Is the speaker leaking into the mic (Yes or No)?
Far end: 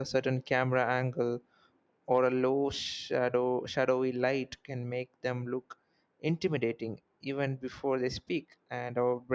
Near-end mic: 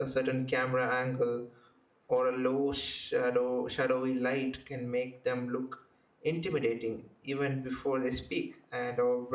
Yes